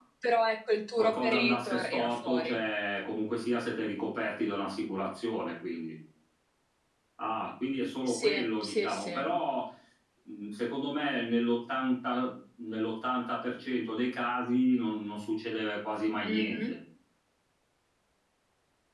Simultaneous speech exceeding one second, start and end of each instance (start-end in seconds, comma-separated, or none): 1.0-2.6, 8.1-9.3